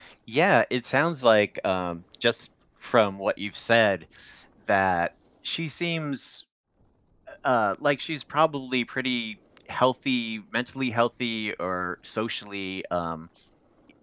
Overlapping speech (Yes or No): No